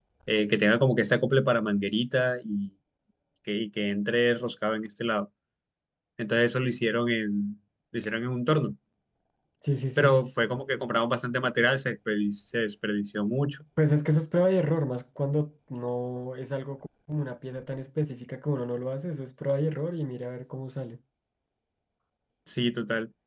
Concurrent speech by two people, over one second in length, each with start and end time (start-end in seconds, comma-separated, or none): none